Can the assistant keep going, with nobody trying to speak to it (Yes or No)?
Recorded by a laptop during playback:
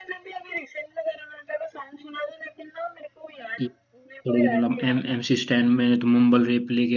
No